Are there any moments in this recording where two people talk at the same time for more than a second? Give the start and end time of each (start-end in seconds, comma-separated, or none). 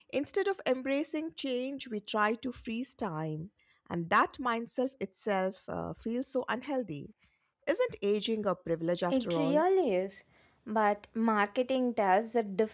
none